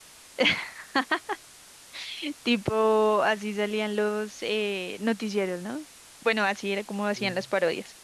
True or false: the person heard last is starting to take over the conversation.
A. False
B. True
A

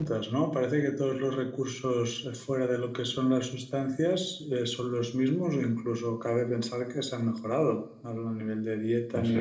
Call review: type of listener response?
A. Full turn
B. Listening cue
B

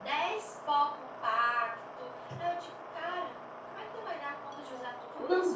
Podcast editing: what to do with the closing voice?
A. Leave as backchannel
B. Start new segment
B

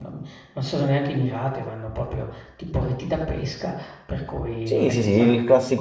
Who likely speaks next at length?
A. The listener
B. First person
A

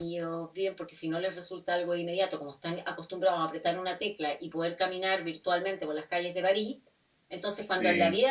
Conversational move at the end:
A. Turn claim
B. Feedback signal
B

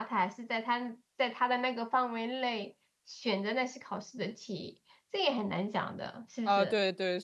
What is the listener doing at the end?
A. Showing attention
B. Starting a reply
B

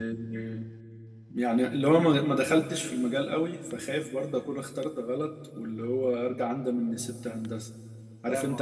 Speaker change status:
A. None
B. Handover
B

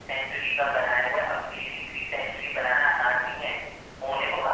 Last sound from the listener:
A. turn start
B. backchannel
B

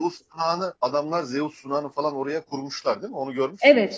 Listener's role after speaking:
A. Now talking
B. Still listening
A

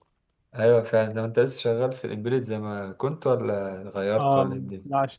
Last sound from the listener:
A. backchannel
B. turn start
B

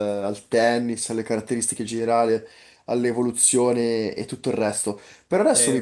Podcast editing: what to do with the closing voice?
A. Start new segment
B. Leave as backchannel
B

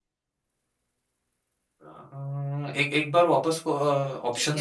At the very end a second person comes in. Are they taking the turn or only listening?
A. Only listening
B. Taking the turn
B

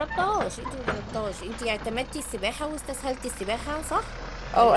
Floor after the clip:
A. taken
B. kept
A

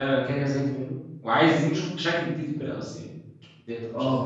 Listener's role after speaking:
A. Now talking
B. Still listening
A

